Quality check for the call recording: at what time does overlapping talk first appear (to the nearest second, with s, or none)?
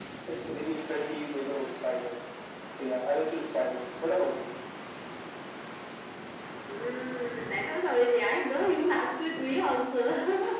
none